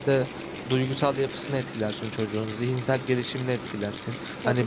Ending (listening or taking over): listening